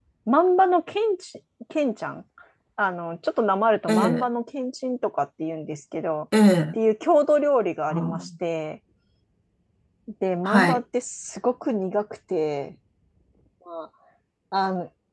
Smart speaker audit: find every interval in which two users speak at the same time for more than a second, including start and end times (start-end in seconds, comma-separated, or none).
none